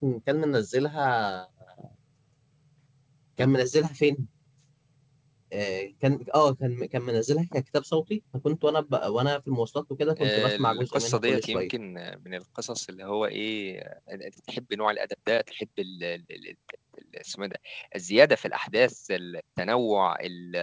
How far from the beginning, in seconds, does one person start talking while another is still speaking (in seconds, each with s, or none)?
10.2 s